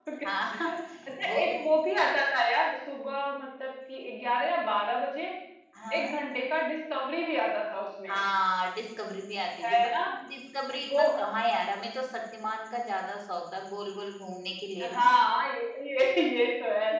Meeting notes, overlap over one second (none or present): none